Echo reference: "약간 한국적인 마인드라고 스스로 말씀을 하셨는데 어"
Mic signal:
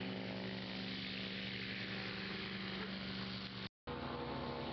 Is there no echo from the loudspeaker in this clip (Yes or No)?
Yes